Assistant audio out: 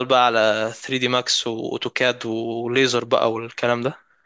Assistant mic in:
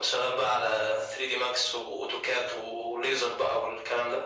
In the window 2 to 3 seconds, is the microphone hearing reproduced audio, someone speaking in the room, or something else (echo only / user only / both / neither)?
echo only